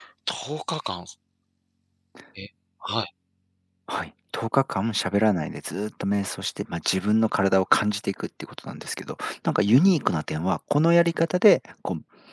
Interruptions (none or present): none